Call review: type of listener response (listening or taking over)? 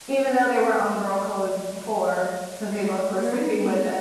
taking over